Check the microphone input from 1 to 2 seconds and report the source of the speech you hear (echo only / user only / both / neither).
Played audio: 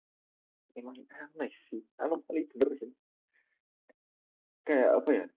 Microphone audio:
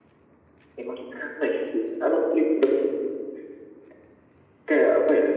echo only